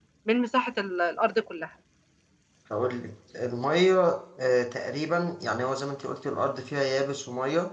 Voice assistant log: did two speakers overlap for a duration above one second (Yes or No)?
No